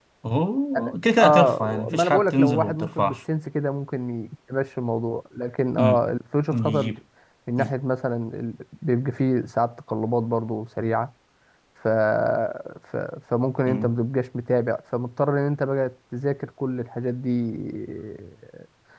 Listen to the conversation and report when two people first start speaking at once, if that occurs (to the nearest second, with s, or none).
1 s